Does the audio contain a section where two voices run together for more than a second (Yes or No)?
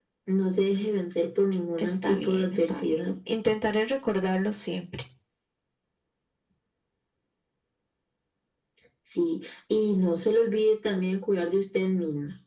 Yes